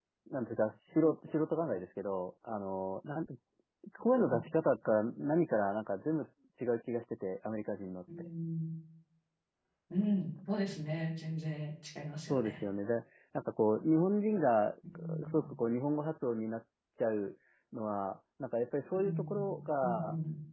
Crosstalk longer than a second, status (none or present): present